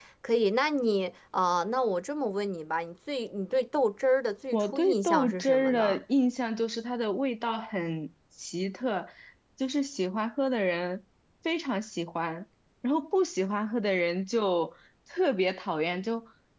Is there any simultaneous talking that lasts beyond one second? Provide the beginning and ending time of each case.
4.5-6.0

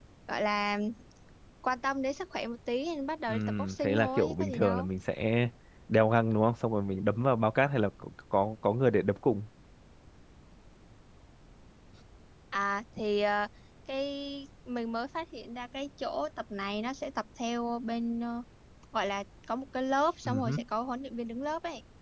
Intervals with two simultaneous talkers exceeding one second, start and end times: 3.3-4.9

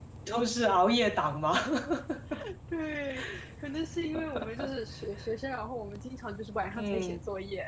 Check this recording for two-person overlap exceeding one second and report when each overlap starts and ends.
none

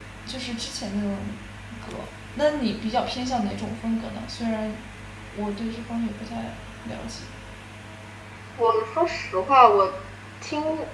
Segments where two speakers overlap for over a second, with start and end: none

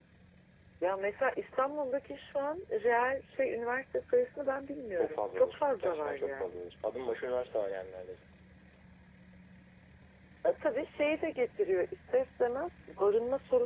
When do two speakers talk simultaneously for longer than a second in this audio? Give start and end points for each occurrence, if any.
5.0-6.6

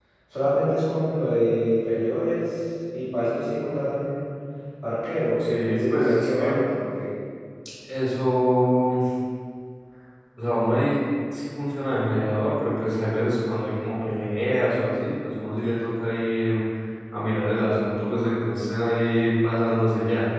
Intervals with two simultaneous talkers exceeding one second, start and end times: 5.4-6.6

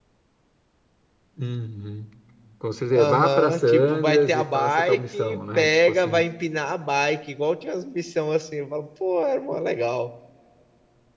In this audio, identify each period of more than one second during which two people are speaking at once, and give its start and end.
2.9-6.2

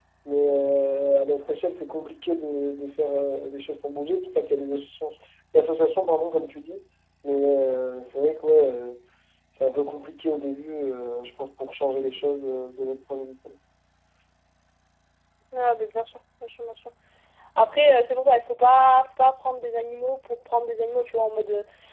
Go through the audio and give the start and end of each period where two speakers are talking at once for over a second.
none

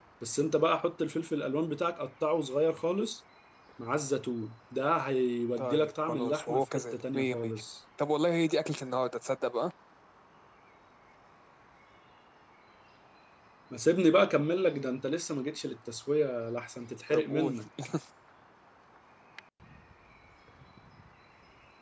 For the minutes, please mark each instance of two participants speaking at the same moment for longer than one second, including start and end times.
5.6-7.5

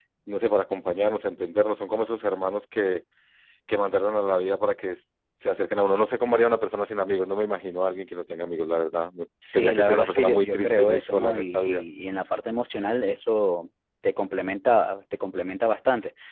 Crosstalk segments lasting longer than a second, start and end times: 9.5-11.8

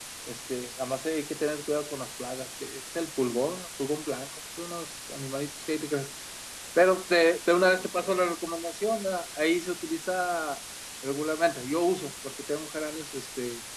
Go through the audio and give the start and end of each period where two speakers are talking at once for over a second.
none

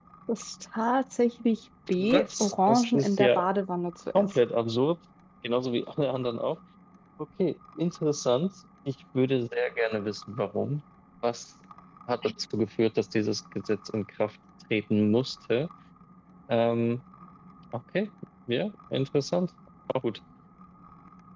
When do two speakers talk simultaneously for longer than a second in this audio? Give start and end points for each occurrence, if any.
2.0-3.5

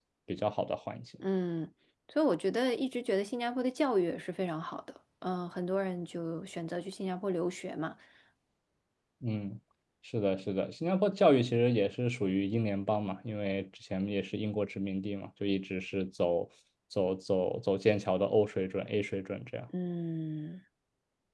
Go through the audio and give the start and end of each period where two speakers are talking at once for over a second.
none

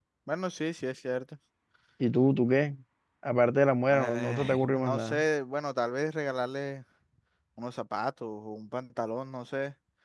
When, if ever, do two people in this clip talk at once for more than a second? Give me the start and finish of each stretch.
3.9-5.2

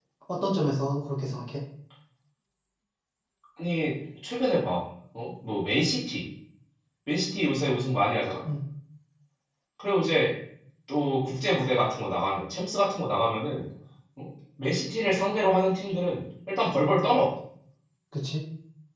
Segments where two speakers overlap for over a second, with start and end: none

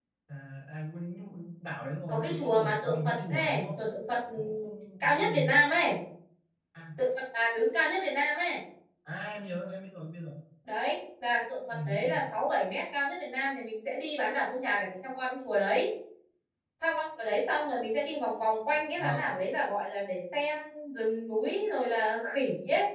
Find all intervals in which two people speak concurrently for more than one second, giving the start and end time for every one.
2.1-3.8

